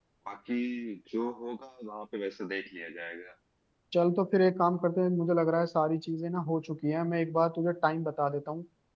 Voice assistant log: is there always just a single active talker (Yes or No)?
Yes